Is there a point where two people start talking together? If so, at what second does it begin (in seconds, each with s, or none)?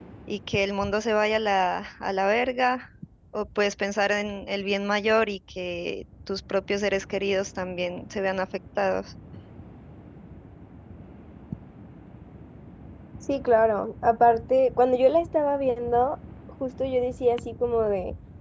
none